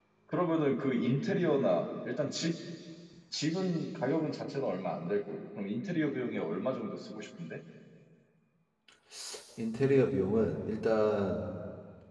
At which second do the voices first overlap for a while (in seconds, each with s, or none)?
none